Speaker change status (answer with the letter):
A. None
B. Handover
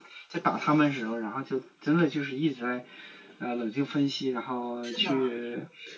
A